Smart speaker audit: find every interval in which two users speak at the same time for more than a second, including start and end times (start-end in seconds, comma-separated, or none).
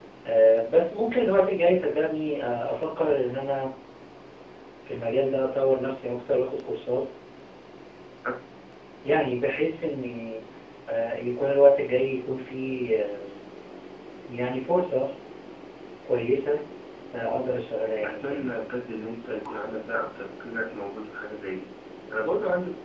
none